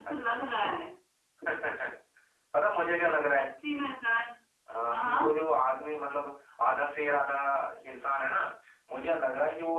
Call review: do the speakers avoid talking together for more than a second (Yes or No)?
Yes